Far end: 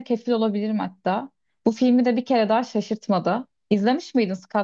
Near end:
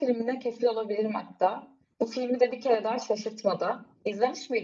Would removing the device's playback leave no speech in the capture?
Yes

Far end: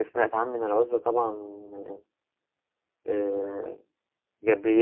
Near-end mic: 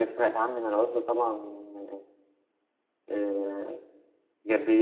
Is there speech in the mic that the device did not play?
No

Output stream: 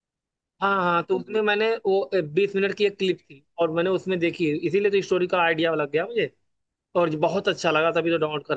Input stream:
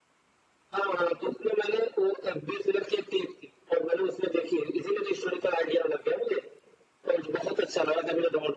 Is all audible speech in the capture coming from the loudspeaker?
Yes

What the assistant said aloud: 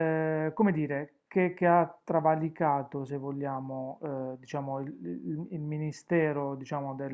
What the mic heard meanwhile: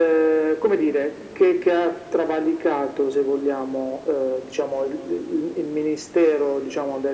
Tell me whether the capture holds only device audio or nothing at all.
Yes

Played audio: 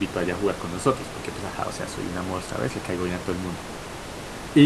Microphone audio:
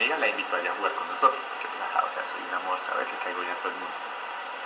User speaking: No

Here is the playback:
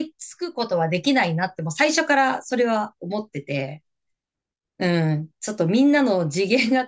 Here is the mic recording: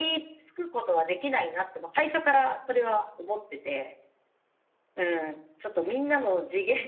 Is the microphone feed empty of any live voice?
Yes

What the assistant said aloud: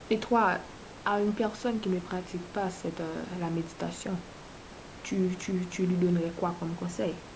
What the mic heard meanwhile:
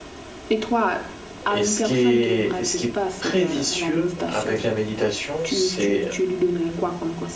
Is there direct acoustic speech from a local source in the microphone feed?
Yes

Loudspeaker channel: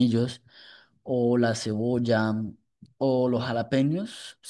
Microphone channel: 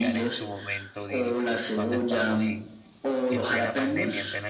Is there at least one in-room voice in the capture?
Yes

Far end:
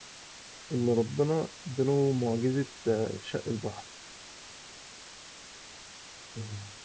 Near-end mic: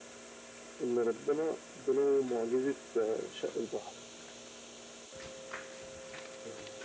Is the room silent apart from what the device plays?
Yes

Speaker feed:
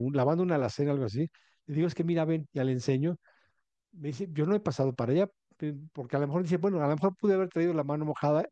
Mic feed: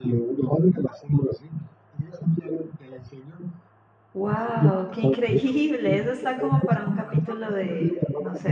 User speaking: Yes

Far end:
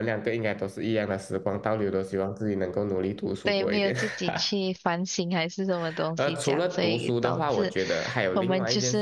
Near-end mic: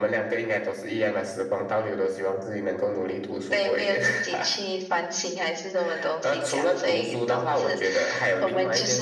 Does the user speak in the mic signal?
No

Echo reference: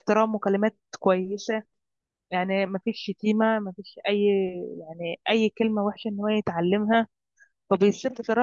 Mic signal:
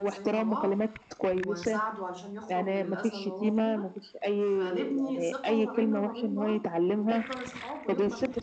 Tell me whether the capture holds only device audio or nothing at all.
No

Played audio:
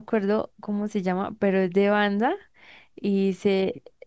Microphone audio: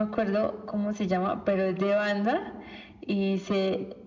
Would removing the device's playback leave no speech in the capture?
Yes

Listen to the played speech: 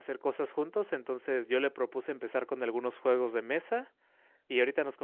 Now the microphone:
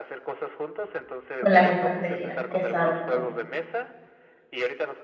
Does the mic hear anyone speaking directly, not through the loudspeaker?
Yes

